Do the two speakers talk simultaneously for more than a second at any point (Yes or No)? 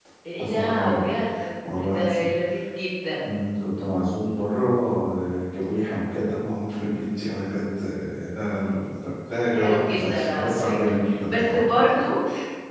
Yes